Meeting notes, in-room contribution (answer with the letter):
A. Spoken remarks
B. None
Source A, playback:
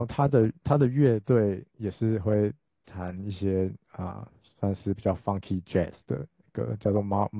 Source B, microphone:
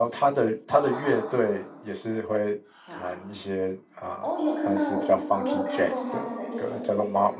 A